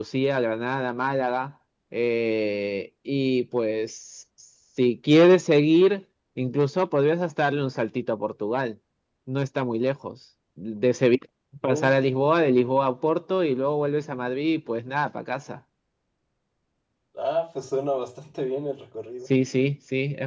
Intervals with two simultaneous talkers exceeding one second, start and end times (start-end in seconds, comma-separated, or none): none